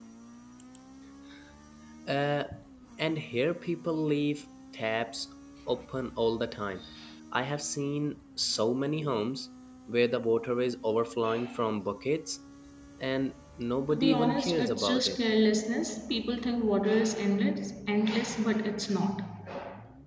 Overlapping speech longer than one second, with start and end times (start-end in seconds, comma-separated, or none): 13.9-15.2